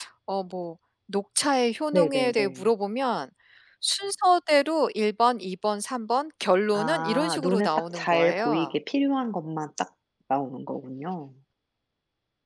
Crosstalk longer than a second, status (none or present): present